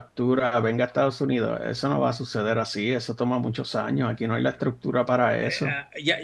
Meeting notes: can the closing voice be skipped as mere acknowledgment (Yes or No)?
No